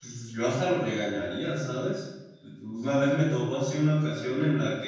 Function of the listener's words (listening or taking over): listening